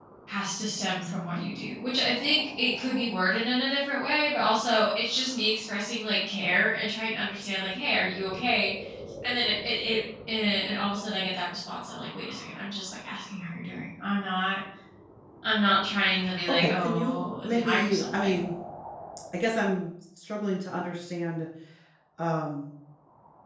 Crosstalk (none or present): present